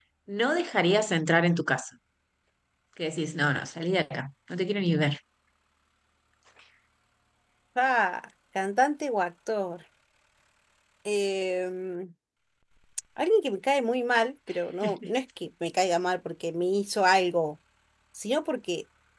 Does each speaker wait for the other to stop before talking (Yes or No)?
Yes